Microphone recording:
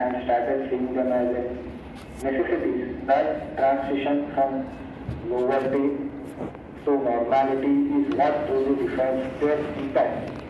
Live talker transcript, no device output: none

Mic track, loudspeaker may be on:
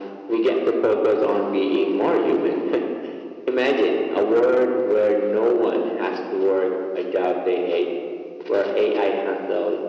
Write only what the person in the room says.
none

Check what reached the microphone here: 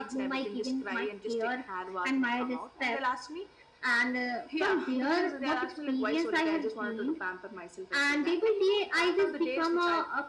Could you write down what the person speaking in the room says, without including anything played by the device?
none

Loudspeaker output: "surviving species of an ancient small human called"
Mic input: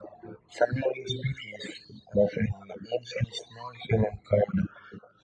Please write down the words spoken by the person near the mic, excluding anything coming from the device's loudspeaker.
none

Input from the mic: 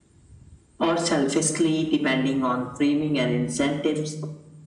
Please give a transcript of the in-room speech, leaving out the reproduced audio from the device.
none

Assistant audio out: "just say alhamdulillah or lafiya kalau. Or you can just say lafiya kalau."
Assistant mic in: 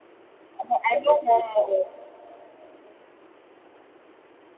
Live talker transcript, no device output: I know I know one more.

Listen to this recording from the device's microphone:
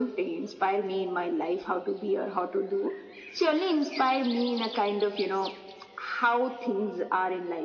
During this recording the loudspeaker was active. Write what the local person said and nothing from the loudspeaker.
none

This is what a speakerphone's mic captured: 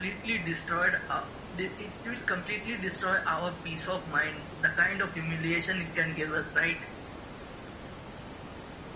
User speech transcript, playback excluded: none

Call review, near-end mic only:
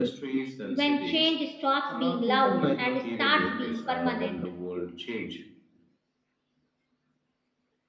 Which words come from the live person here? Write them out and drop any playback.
when change stops being loud and starts being permanent.

